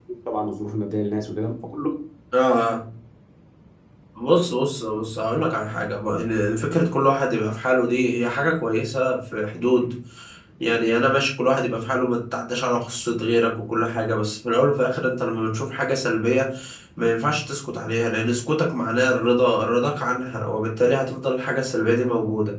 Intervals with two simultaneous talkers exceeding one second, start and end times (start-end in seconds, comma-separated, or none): none